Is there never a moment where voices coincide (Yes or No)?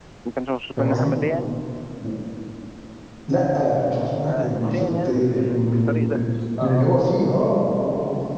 No